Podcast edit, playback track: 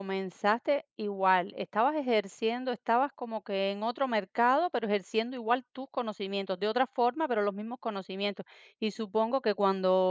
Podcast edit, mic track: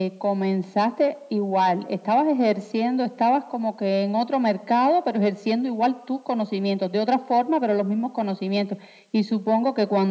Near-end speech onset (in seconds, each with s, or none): none